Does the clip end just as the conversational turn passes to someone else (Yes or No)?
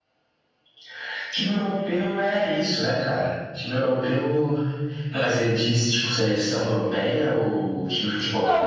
Yes